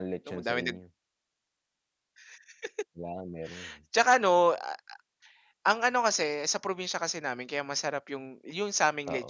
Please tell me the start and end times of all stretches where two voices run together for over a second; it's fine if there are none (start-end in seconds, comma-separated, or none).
none